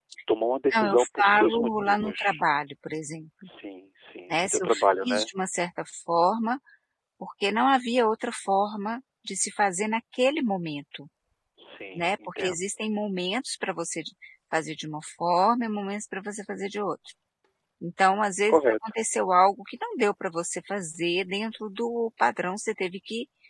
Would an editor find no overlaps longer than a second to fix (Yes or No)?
No